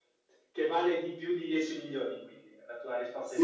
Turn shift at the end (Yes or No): Yes